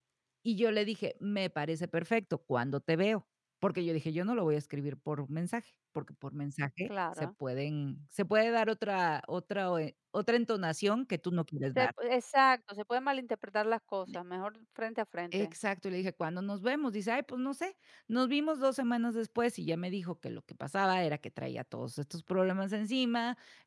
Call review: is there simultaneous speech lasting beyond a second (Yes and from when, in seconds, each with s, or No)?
No